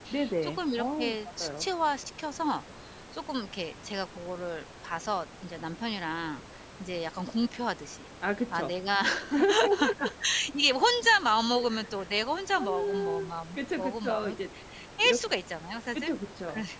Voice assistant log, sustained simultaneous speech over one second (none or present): present